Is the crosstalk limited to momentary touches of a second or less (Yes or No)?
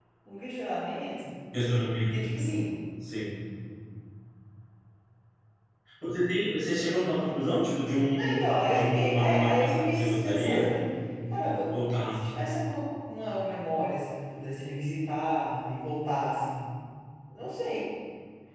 No